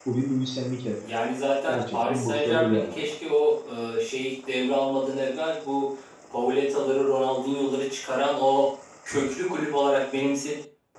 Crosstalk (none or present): present